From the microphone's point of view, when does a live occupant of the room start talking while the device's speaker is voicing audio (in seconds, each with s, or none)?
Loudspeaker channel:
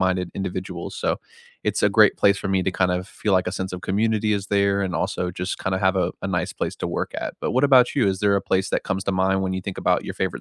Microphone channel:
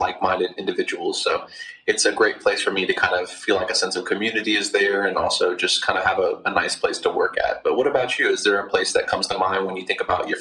none